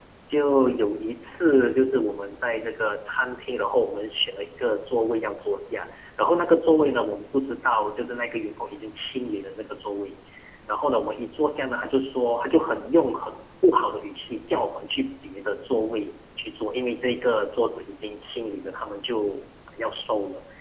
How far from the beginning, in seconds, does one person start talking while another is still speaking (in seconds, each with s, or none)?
none